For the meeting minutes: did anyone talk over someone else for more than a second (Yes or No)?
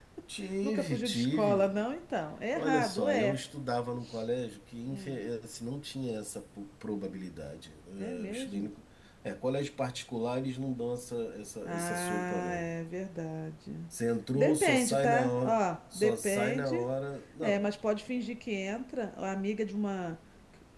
Yes